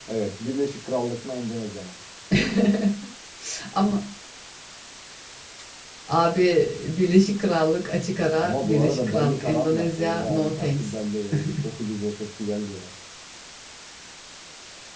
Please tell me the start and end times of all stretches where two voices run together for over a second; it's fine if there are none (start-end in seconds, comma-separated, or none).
8.4-10.9